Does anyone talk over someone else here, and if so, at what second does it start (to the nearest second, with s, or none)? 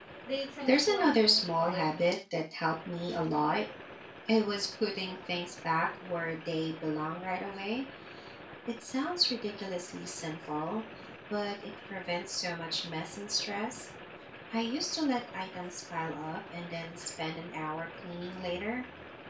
1 s